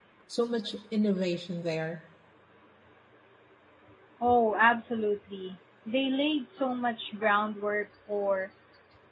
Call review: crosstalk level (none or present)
none